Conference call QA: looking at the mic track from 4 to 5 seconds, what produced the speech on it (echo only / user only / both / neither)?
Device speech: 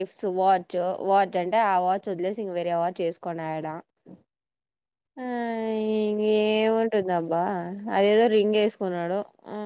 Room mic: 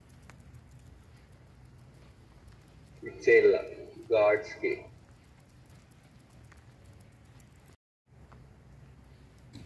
user only